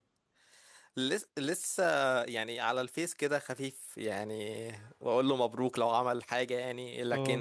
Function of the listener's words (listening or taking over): listening